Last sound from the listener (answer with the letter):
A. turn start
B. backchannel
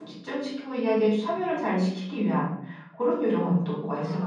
A